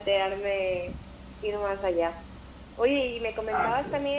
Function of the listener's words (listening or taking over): listening